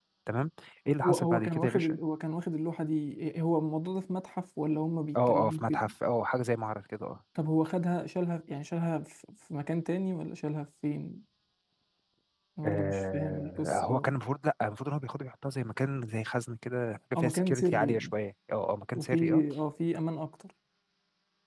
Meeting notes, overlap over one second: present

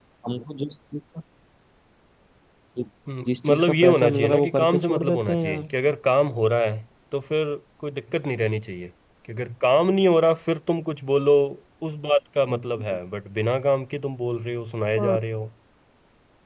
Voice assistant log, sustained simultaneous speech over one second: present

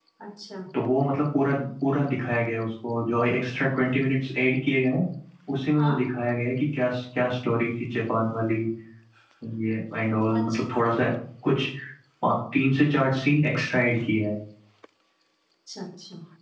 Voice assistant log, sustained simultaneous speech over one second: none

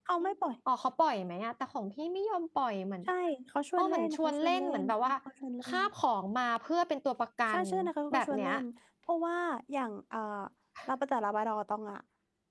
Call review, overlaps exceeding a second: present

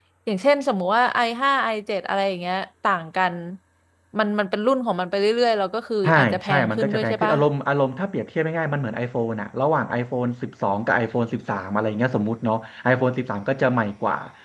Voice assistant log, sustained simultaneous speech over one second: present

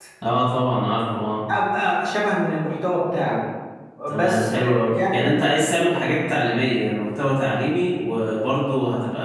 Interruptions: present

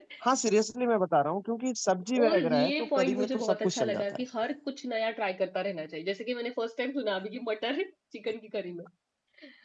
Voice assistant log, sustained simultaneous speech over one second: present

